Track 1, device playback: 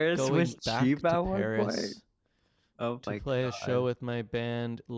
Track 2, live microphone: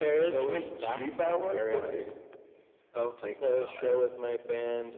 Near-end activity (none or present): none